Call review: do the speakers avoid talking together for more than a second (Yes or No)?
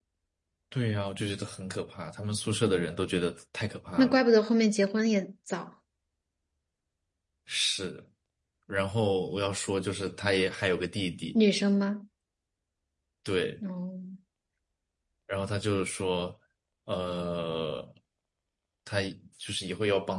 Yes